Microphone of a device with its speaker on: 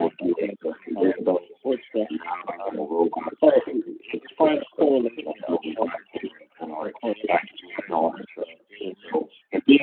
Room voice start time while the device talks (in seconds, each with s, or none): none